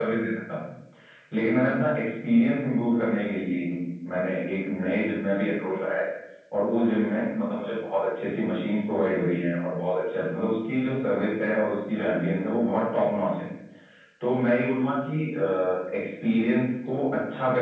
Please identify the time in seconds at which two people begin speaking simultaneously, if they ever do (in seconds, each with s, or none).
none